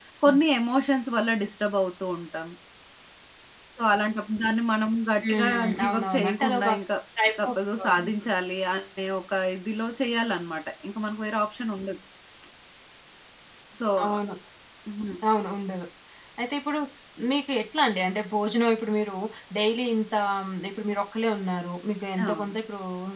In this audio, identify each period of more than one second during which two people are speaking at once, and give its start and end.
5.2-6.7

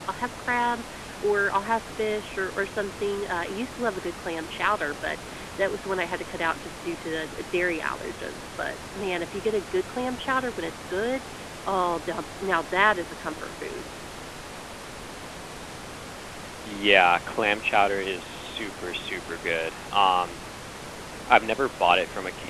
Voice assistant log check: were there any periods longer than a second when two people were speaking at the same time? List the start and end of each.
none

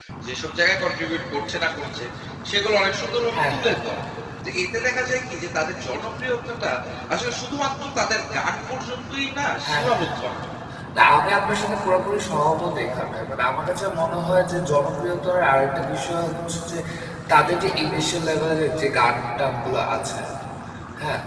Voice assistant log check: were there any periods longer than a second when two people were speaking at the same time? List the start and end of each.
none

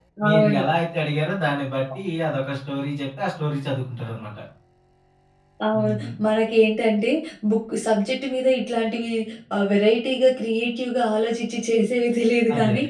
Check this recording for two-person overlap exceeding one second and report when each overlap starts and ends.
none

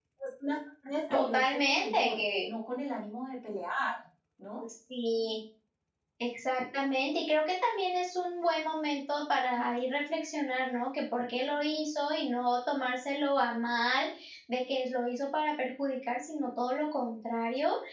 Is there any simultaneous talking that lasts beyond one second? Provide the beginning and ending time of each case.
1.1-2.5

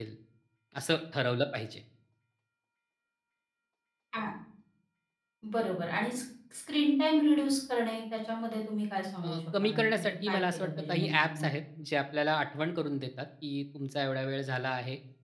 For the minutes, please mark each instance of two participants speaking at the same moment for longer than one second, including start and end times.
9.2-11.4

